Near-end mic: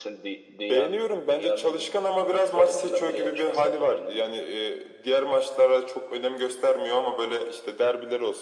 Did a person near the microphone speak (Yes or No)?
No